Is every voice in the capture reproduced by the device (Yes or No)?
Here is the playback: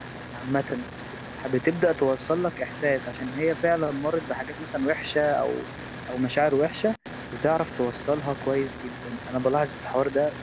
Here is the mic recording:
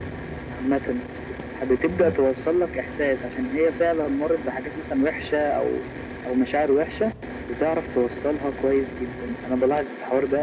No